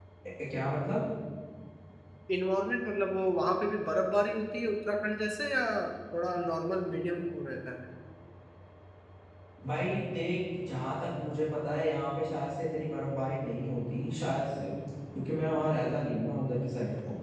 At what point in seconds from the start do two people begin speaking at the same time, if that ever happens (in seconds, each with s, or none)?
none